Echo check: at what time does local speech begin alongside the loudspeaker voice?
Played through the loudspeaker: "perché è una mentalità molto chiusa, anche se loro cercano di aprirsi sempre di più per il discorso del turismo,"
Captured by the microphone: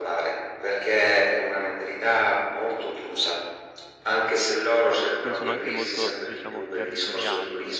5.2 s

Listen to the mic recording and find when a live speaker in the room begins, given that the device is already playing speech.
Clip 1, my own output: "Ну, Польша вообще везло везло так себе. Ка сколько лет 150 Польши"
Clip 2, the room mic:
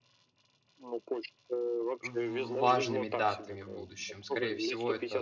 2.0 s

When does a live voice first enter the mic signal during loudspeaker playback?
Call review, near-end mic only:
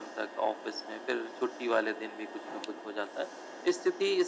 none

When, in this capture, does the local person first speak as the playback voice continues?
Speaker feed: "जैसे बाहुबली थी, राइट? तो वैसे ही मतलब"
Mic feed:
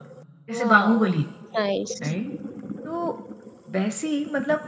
0.6 s

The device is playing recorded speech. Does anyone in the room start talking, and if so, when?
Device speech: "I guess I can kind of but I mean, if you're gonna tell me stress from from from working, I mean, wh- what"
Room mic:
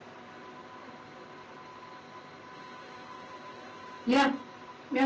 4.0 s

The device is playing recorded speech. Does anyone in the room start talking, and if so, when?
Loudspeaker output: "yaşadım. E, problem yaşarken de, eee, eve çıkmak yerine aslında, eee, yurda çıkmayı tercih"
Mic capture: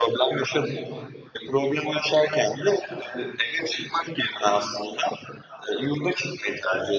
none

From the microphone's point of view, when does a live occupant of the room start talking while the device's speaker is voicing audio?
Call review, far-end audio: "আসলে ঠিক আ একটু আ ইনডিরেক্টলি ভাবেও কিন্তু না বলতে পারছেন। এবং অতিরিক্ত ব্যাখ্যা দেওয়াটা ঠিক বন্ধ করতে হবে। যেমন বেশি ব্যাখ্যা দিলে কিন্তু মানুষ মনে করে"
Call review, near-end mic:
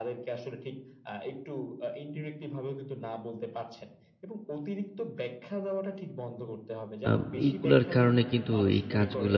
7.1 s

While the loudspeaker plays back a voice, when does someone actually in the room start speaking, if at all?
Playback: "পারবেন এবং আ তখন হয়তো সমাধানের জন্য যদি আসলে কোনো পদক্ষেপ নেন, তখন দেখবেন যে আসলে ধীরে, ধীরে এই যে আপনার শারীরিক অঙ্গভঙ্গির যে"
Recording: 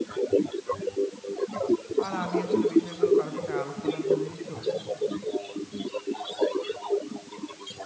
2.0 s

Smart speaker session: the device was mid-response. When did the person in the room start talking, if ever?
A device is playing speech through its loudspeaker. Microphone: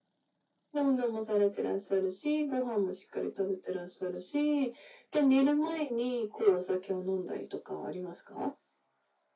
none

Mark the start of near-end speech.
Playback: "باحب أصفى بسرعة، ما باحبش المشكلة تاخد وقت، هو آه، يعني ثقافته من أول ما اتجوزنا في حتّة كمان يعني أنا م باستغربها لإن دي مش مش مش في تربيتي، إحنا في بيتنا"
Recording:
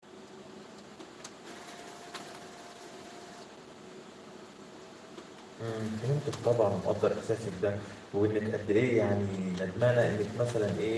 5.6 s

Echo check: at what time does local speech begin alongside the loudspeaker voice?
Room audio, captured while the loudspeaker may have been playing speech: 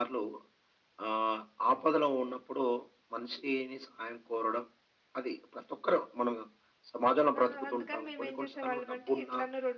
7.4 s

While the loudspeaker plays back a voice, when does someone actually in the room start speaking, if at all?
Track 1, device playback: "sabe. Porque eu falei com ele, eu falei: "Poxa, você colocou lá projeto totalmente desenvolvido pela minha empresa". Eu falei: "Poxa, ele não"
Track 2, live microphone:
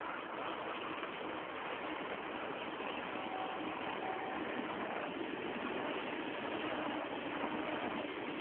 none

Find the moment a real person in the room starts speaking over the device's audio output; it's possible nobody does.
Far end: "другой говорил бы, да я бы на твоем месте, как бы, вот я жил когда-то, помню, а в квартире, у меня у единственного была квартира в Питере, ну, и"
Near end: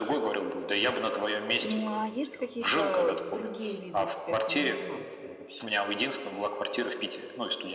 1.5 s

